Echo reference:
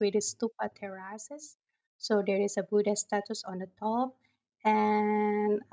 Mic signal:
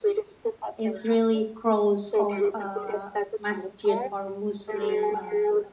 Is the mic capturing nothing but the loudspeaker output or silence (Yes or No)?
No